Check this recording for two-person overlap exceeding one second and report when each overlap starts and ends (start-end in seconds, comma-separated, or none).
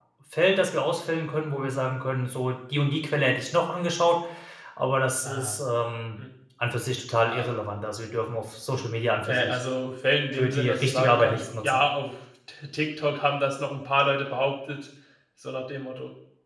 10.3-11.8